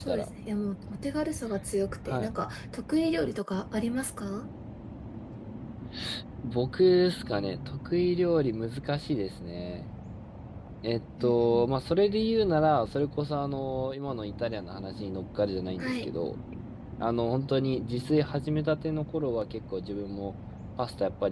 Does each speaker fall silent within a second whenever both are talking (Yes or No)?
Yes